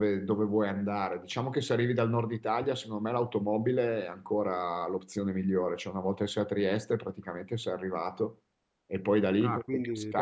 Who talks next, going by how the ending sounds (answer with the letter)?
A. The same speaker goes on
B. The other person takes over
B